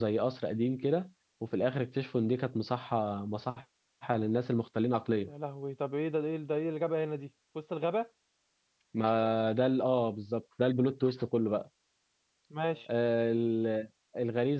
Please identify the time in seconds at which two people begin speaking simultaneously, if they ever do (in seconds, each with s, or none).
none